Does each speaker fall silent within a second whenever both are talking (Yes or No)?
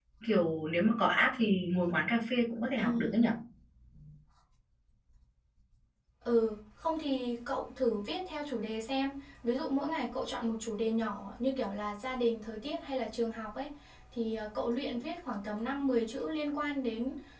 Yes